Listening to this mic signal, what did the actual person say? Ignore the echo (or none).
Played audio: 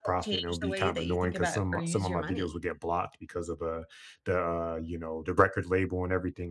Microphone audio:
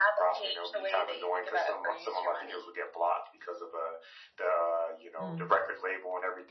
Mm.